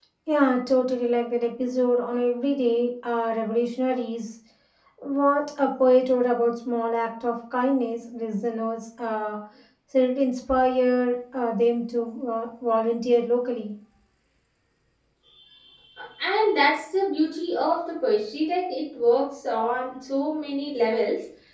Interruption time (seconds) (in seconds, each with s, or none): none